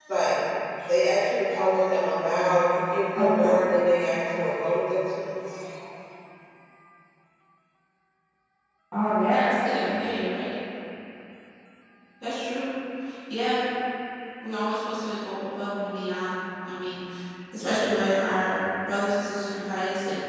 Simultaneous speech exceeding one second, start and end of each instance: none

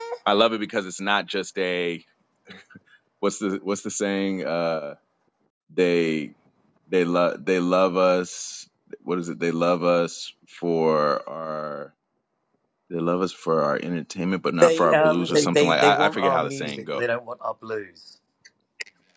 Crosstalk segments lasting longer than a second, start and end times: 14.6-17.0

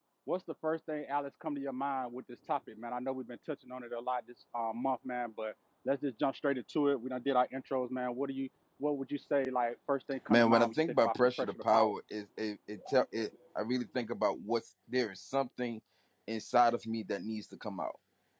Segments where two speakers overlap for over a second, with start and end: 10.3-11.9

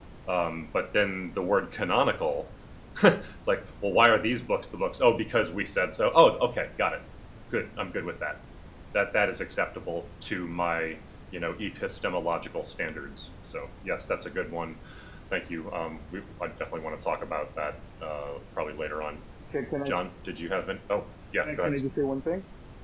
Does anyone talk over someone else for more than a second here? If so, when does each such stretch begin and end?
none

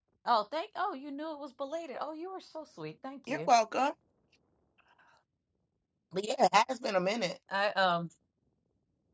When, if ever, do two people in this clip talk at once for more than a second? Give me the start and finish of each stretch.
none

